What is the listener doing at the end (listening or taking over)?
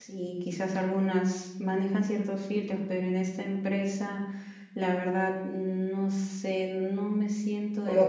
taking over